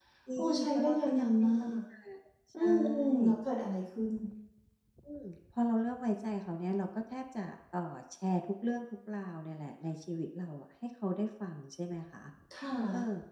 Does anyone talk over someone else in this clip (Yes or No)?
Yes